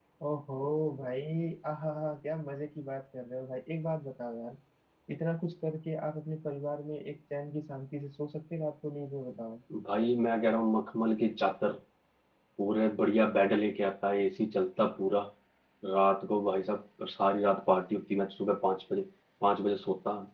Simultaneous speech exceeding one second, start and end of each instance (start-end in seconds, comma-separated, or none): none